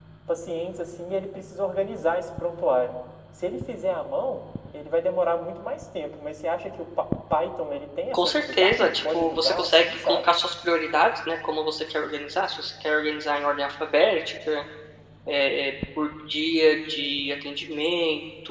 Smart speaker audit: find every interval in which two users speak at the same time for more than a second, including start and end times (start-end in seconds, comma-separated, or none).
8.1-10.2